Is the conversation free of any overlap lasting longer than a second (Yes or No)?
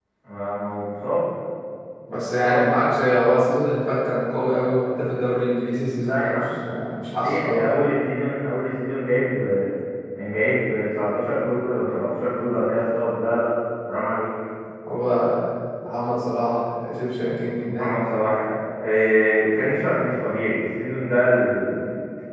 Yes